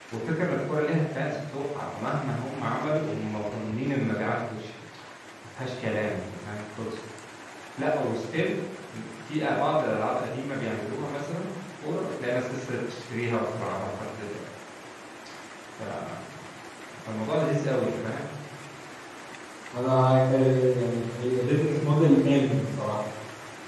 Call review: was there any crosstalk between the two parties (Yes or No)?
No